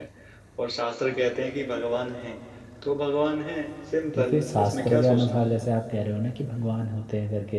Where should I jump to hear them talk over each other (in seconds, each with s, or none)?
4.1 s